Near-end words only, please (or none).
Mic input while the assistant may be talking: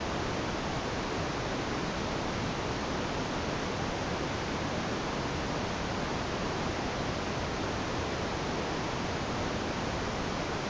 none